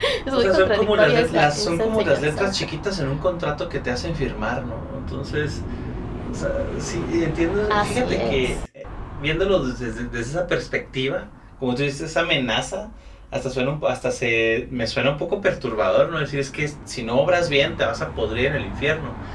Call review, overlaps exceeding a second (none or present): present